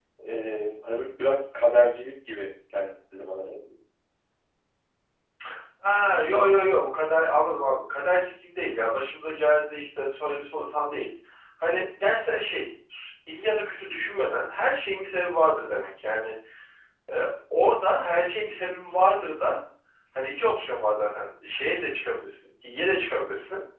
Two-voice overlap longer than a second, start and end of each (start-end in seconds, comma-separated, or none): none